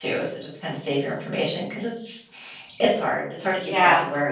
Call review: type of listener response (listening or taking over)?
taking over